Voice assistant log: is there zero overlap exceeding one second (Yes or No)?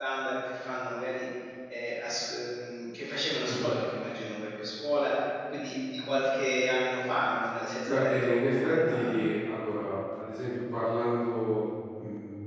No